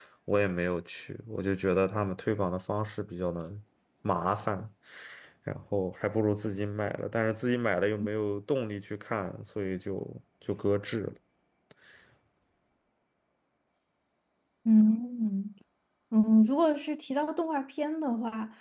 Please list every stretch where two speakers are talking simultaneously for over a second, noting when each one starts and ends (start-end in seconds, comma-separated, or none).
none